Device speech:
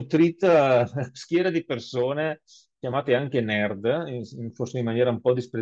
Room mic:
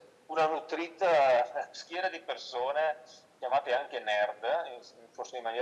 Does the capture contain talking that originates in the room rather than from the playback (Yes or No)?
No